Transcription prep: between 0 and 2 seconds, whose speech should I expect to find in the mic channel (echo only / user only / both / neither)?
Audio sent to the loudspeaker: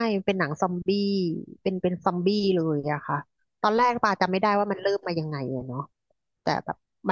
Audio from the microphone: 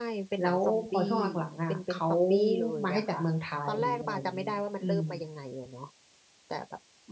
both